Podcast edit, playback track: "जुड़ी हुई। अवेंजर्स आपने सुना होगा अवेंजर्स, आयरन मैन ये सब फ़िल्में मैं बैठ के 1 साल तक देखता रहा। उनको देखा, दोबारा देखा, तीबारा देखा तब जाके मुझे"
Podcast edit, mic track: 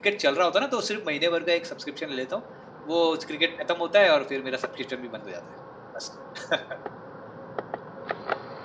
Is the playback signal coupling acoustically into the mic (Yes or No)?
No